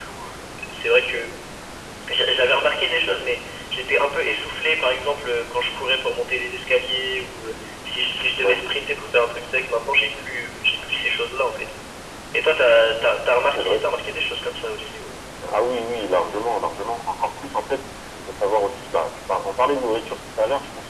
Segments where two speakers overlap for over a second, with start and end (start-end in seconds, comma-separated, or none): none